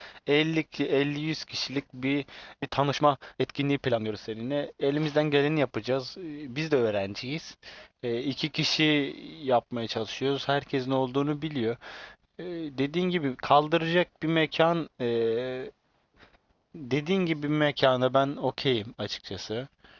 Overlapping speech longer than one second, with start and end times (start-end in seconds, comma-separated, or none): none